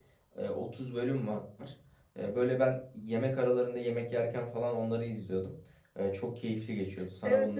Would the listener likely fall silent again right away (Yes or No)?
No